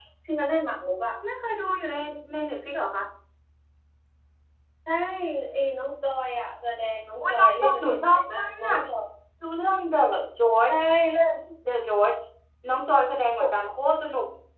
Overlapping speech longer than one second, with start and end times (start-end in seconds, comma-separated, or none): 7.2-8.8